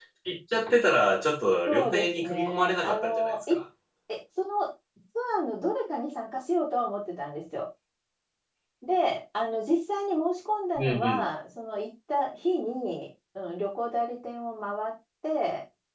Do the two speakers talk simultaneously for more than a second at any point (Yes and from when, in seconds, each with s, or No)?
Yes, from 1.7 s